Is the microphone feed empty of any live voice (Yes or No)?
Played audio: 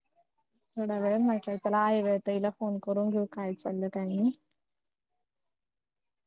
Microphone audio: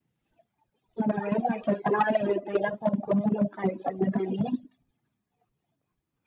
Yes